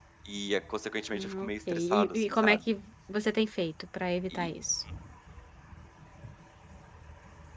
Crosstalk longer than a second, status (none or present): present